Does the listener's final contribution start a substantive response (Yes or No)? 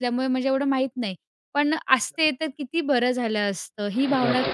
Yes